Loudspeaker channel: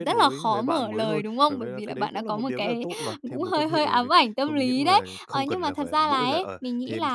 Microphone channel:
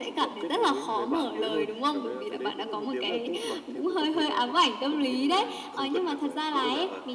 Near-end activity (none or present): none